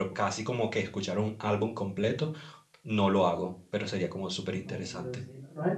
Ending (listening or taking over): taking over